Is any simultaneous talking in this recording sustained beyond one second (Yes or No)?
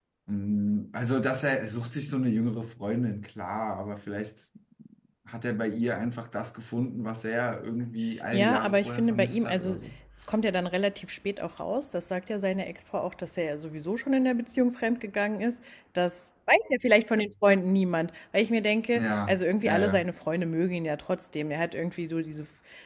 Yes